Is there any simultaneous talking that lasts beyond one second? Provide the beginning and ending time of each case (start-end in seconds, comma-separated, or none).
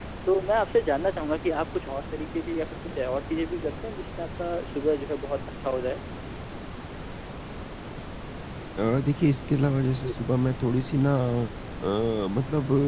none